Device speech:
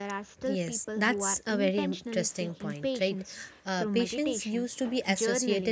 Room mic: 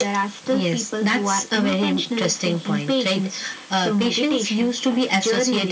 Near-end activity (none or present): none